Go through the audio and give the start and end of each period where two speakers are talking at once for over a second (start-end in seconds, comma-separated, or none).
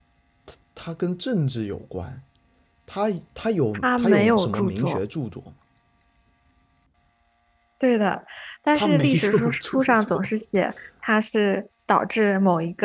3.7-5.0, 8.8-10.3